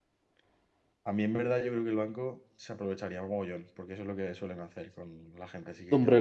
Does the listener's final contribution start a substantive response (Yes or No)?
Yes